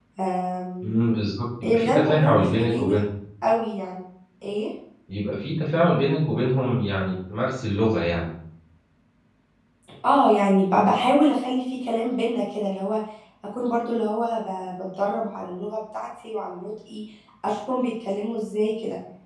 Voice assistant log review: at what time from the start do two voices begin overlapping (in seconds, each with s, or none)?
1.6 s